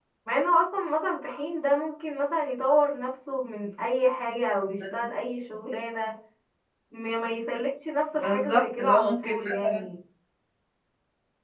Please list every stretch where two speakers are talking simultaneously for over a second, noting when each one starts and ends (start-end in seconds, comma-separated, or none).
8.2-9.8